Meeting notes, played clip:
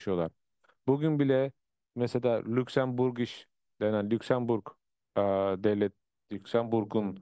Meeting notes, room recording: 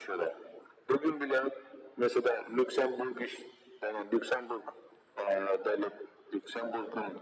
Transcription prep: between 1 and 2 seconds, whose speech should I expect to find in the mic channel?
echo only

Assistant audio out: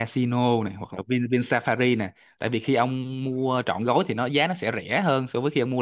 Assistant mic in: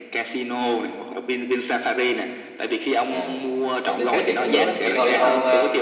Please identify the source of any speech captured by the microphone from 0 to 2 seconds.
echo only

